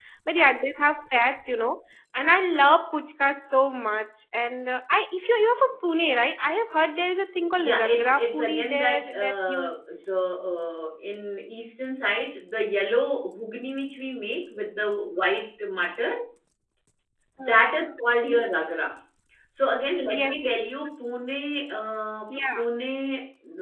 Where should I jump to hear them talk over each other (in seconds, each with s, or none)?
7.6 s